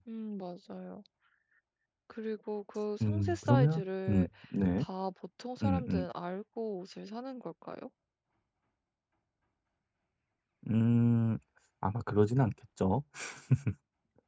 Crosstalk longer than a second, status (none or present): present